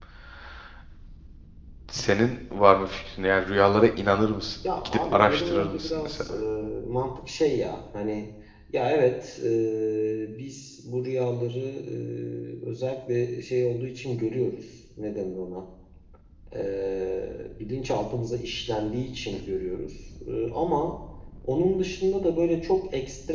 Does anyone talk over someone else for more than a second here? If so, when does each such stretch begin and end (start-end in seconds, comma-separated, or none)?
4.8-6.3